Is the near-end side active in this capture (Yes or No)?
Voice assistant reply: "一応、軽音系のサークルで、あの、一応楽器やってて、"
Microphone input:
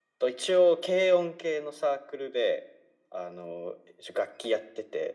No